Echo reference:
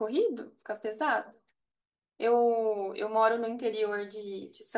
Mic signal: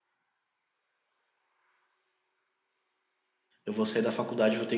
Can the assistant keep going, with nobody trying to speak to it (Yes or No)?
No